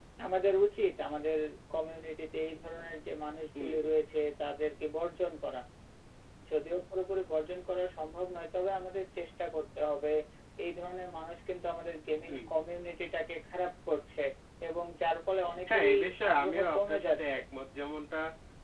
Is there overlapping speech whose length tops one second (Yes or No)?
Yes